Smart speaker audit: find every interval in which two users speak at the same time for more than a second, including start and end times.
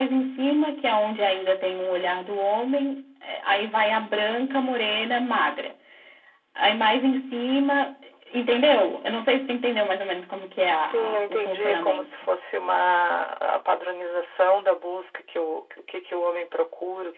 10.9-12.1

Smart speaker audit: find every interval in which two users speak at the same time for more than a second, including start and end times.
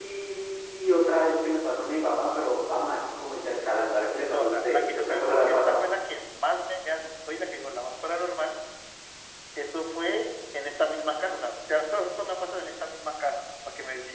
4.3-5.8

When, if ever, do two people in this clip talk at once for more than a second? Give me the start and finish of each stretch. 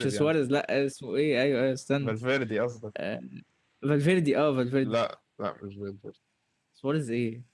none

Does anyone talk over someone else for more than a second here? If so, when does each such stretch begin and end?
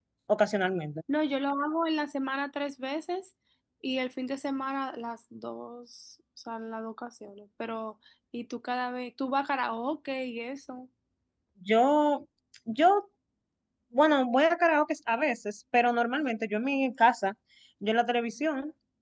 none

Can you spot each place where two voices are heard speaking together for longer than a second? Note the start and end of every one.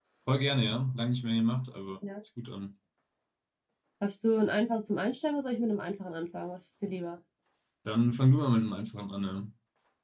none

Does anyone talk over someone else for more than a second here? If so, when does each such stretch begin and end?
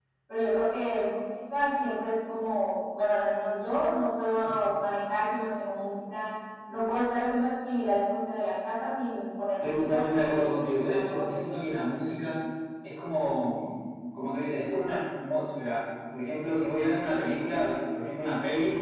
9.6-11.6

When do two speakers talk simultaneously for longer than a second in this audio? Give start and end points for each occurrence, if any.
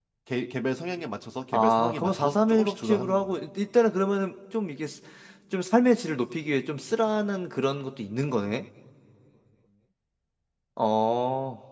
1.5-3.3

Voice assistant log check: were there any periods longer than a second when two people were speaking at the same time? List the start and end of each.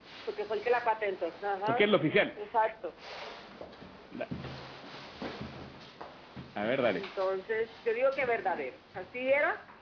none

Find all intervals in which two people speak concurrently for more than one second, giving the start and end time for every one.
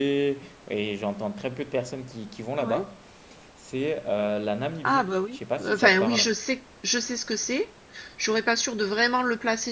4.8-6.2

